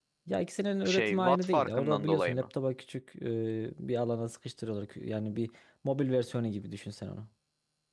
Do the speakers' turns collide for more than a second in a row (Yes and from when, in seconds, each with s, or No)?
Yes, from 0.8 s